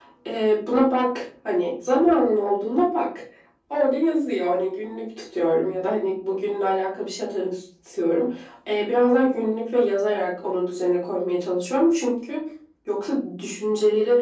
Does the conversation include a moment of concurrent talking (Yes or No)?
No